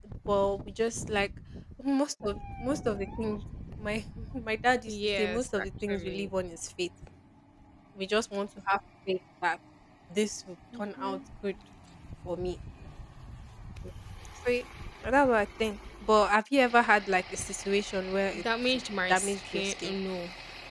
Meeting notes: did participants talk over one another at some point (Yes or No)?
Yes